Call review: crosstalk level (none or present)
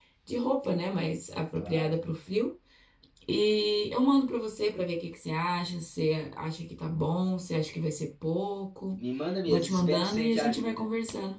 present